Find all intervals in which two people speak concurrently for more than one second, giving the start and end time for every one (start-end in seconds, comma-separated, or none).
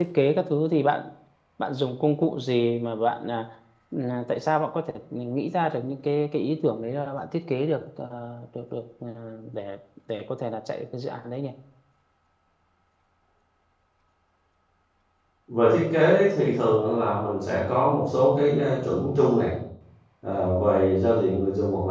none